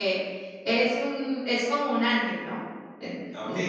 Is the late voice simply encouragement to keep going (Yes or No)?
No